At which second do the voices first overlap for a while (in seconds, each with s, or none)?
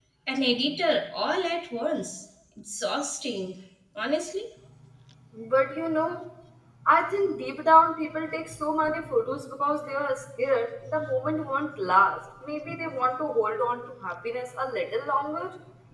none